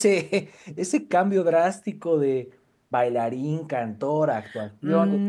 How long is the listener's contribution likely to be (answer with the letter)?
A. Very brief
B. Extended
B